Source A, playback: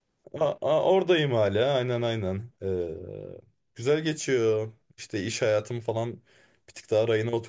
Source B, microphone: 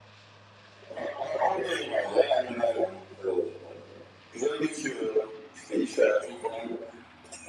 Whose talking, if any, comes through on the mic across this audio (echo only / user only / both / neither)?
echo only